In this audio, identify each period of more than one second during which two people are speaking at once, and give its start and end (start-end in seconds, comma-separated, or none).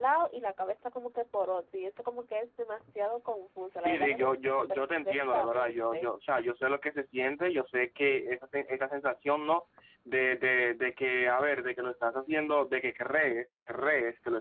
3.8-6.1